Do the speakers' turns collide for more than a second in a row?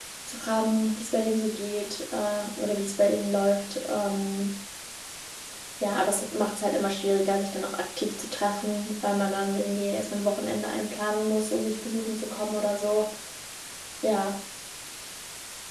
No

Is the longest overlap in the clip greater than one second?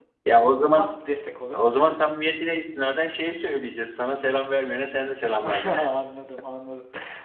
No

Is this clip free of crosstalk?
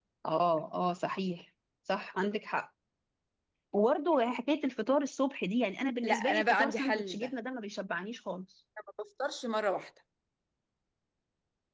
No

